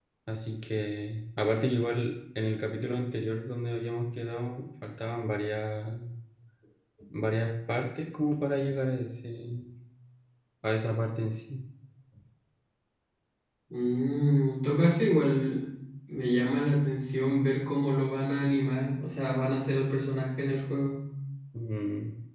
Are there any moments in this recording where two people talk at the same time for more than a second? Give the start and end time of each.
none

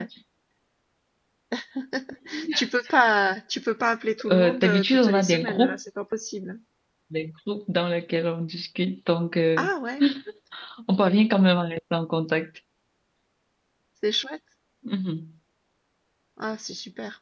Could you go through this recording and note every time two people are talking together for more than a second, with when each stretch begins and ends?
4.3-5.8

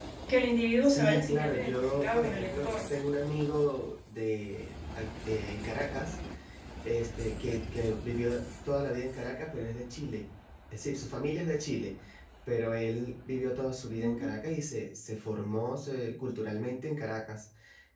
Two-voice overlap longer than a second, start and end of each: 0.8-2.9

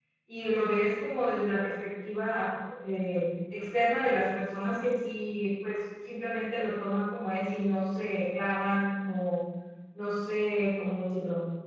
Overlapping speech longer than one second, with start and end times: none

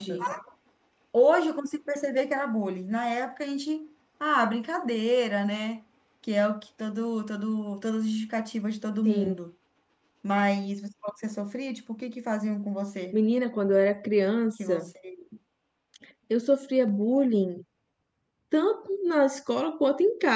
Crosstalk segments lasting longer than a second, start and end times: none

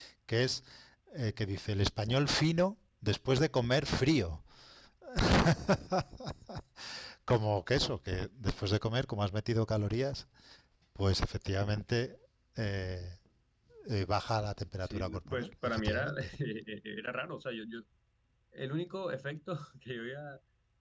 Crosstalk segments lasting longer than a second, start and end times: 14.8-16.3

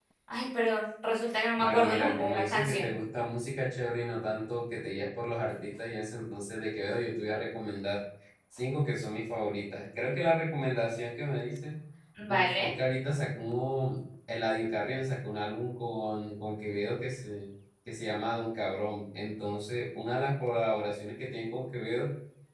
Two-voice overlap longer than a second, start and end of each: 1.6-2.9

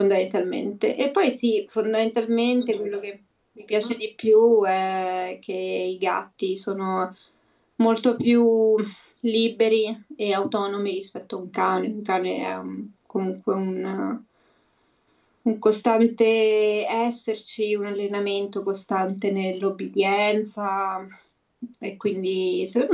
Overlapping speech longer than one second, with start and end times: none

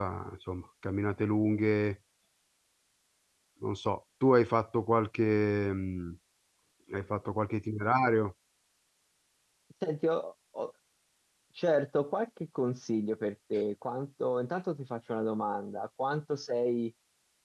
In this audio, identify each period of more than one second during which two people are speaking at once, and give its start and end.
none

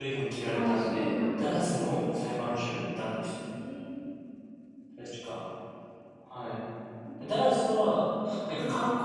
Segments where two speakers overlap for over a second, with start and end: 0.5-2.0

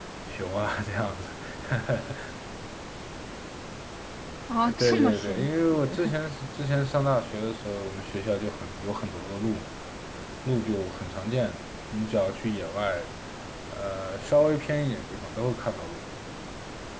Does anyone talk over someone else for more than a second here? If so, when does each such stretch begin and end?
4.6-6.0

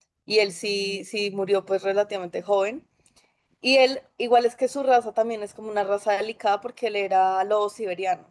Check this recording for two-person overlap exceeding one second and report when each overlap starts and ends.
none

